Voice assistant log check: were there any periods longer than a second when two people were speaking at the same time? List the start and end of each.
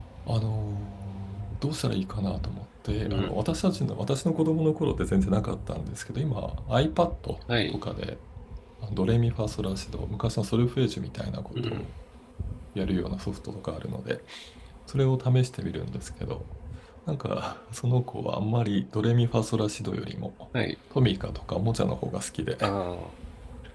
none

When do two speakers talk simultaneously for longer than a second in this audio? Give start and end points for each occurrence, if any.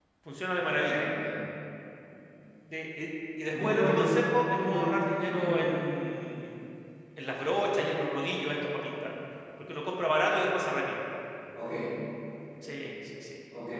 3.5-5.7

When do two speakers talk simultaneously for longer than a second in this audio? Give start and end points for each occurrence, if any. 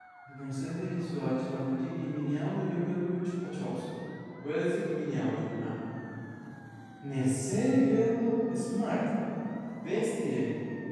none

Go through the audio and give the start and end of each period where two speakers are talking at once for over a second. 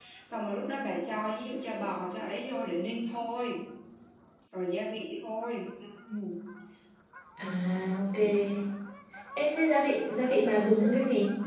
none

